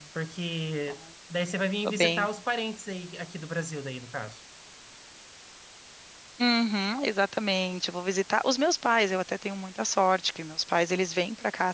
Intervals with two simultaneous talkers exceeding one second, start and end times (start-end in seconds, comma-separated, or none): none